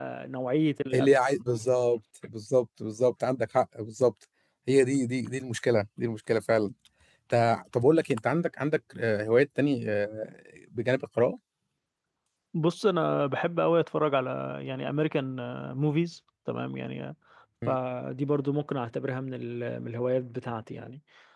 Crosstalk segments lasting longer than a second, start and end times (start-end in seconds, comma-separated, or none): none